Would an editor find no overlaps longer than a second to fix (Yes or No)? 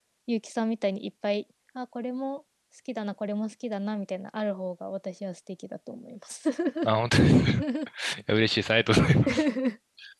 Yes